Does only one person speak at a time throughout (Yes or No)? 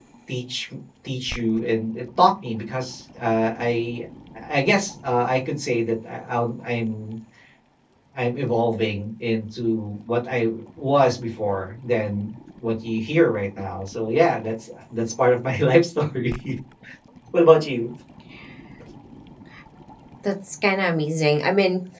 Yes